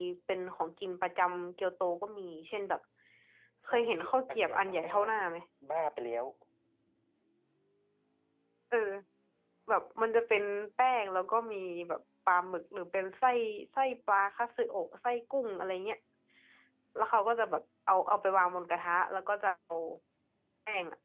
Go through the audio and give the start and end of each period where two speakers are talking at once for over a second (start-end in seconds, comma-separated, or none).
3.6-5.0